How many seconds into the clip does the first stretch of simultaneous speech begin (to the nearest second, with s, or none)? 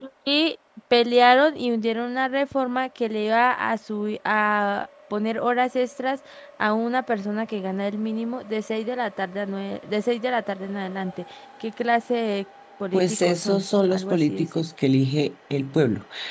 13 s